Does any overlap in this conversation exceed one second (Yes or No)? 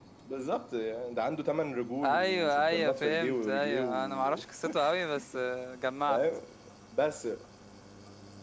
Yes